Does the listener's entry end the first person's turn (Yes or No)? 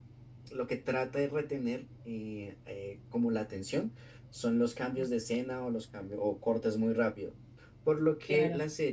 No